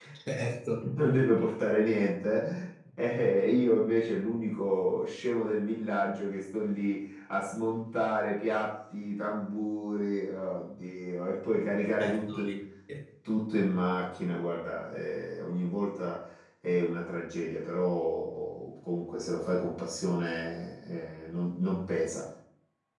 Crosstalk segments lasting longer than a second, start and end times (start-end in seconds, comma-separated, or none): none